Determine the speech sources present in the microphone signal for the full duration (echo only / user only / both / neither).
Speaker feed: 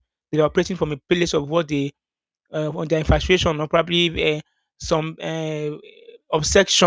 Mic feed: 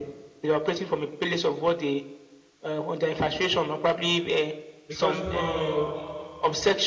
both